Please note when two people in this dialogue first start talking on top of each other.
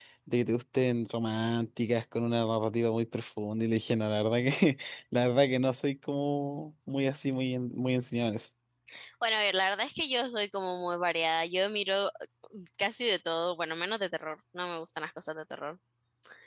none

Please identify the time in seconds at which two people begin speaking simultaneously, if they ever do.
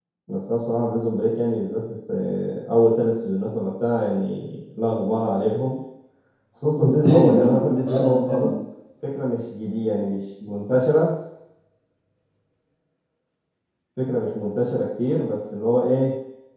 6.8 s

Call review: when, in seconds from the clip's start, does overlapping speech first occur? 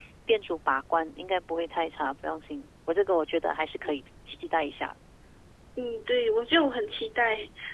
none

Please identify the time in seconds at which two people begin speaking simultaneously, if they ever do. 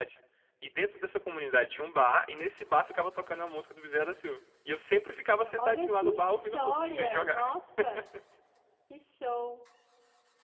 5.6 s

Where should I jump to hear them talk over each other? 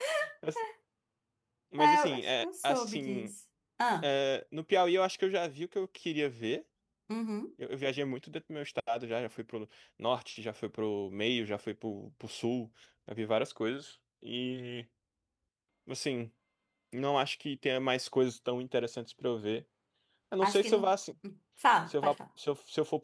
1.8 s

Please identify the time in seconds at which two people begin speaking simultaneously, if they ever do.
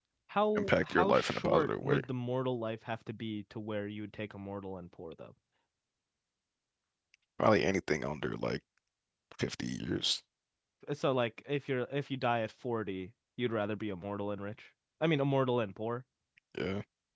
0.6 s

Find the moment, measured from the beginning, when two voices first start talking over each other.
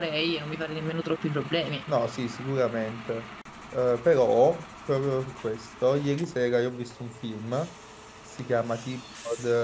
none

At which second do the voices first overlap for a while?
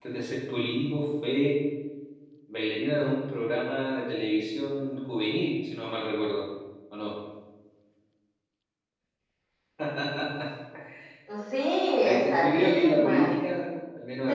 12.0 s

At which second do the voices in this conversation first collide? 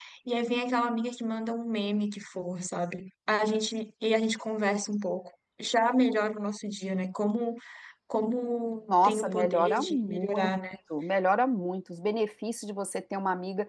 8.9 s

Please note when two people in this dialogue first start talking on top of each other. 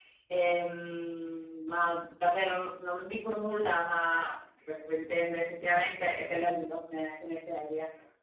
none

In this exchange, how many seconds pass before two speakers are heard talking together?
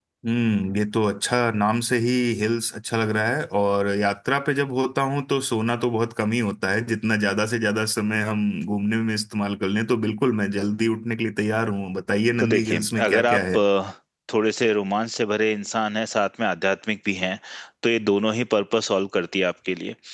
12.4 s

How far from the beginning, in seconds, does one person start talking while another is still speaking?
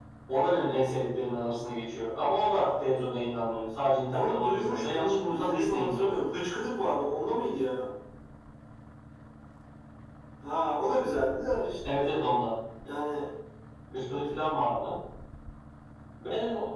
4.1 s

